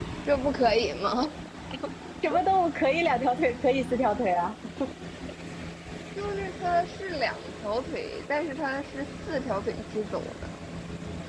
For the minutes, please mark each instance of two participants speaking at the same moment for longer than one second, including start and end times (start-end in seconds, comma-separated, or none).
none